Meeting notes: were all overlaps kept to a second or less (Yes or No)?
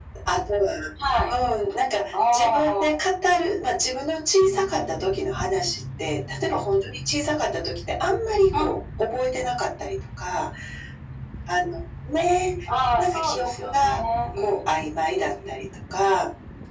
No